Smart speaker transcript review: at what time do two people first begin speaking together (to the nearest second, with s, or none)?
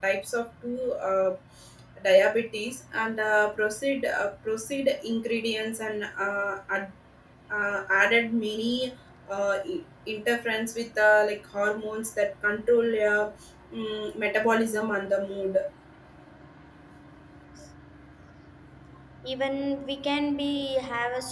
none